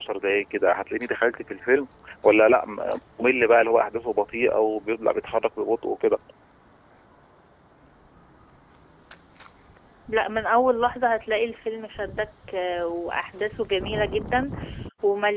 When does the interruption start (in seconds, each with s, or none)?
none